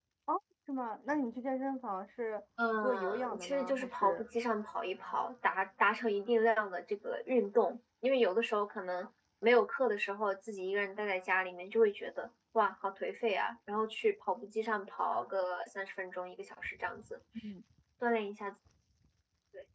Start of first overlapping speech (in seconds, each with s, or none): 2.8 s